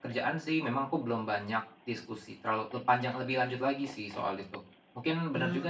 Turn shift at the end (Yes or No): No